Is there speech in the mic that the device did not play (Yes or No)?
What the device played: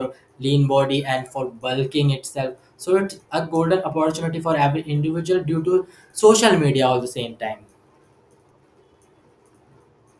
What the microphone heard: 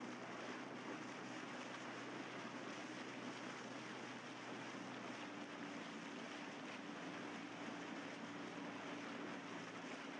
No